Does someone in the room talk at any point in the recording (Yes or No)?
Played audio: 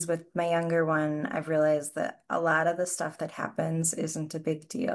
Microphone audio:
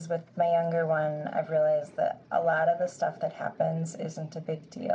No